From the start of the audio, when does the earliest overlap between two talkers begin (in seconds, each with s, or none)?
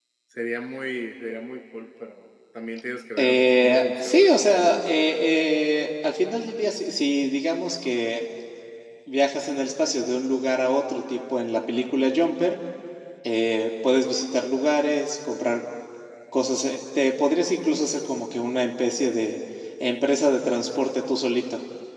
3.2 s